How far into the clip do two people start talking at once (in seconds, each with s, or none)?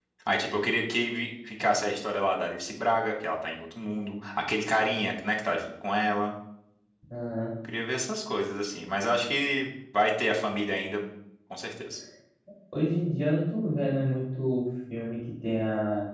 none